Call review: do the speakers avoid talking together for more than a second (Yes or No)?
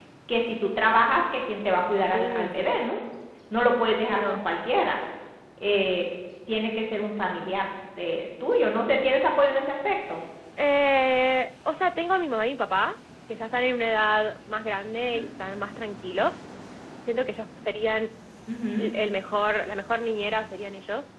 Yes